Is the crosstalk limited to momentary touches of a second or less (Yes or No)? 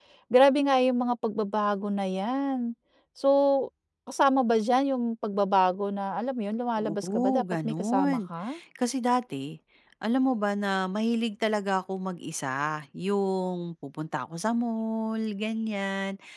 No